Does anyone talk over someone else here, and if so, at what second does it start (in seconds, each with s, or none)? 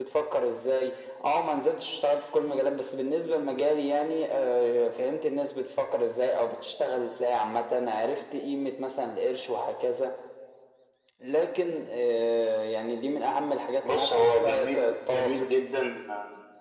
13.8 s